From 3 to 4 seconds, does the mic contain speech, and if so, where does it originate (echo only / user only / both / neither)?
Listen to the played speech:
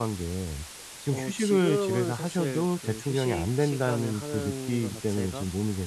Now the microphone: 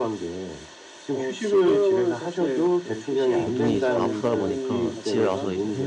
both